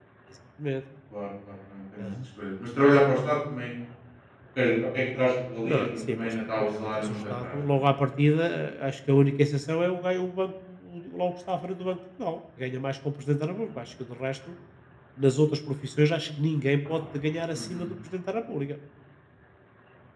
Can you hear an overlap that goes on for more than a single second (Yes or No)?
Yes